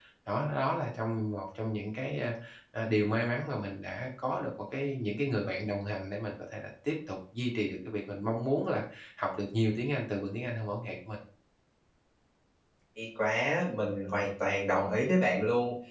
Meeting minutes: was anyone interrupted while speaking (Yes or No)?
No